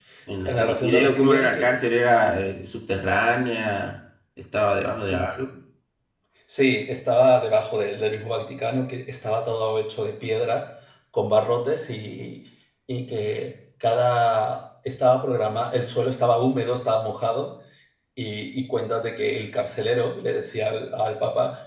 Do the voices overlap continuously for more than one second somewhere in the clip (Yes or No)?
Yes